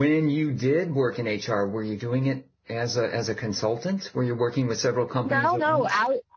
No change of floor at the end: No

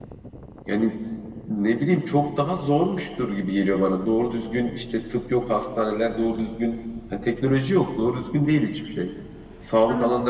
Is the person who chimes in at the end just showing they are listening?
Yes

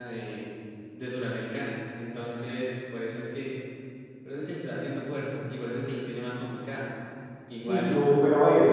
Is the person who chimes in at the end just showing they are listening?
No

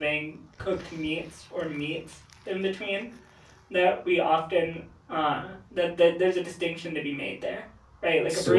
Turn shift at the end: No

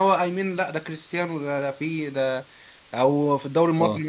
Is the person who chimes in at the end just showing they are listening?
Yes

